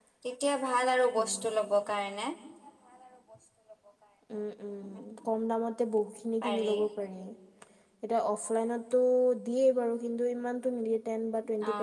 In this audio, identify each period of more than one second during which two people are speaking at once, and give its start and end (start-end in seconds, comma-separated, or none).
none